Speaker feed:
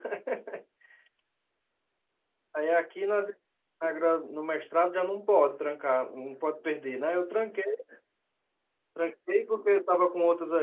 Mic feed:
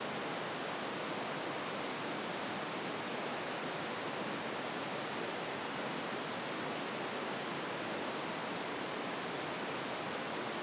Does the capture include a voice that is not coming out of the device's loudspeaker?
No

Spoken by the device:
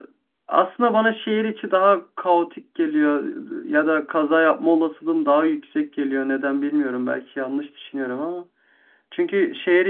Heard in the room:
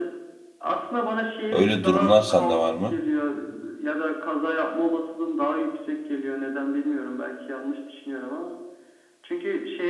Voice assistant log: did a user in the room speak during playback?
Yes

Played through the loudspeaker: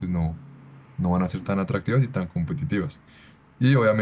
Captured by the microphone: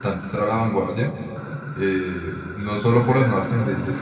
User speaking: Yes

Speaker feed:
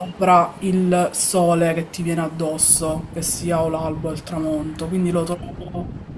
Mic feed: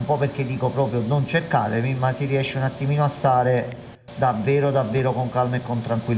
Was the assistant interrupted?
Yes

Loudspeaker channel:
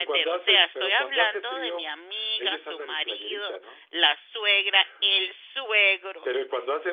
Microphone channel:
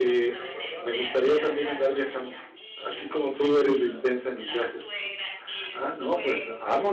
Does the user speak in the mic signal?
Yes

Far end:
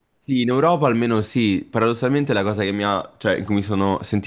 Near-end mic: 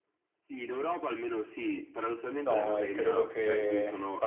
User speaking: Yes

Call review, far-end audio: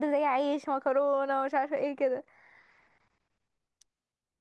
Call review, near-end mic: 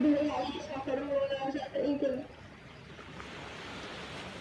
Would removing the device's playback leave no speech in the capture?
Yes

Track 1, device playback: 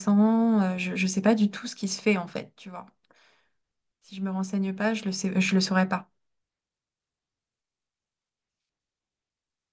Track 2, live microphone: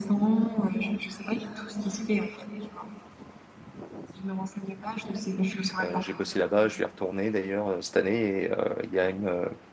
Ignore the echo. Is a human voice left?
Yes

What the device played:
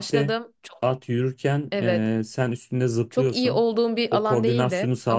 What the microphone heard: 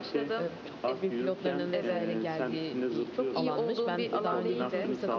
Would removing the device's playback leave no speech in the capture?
No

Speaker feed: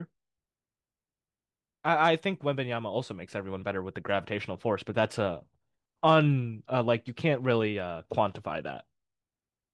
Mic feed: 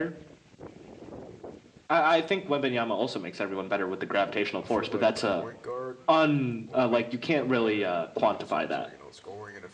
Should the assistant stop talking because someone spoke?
Yes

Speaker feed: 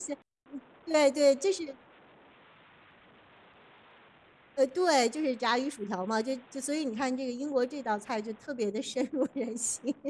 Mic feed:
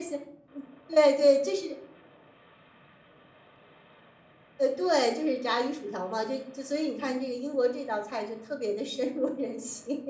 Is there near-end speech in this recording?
No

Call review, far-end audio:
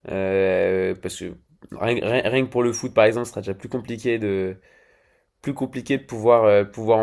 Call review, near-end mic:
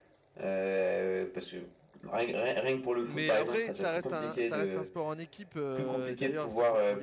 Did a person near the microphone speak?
Yes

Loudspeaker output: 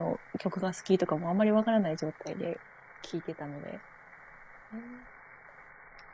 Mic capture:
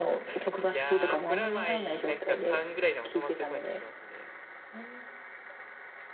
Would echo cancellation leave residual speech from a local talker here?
Yes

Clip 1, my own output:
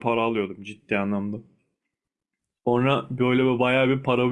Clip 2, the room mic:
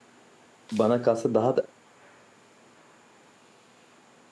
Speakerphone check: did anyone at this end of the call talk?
Yes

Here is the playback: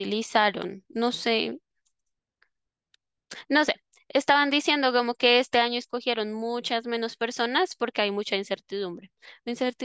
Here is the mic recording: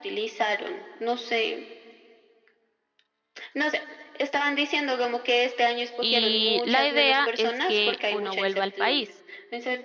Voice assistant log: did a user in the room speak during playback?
Yes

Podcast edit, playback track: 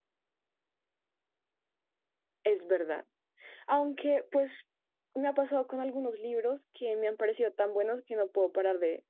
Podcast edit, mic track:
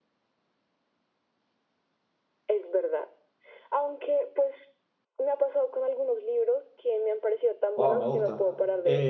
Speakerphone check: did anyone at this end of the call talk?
Yes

